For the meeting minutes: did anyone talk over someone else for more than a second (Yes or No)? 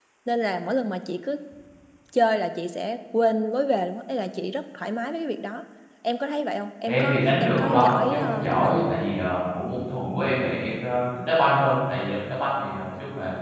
Yes